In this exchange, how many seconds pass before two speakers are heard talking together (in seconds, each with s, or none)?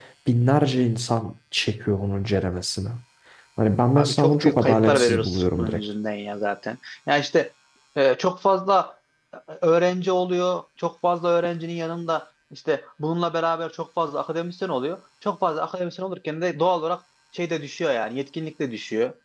4.0 s